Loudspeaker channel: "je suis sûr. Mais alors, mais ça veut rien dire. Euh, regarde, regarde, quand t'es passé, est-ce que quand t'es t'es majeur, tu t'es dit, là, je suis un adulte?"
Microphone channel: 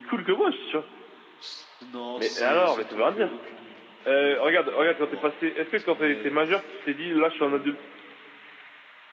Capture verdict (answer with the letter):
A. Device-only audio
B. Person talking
B